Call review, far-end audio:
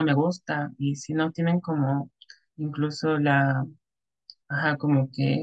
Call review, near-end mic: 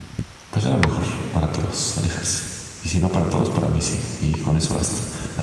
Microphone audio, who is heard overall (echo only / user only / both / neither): user only